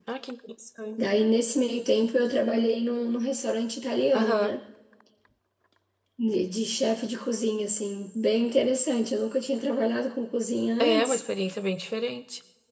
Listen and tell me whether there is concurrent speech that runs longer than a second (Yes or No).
No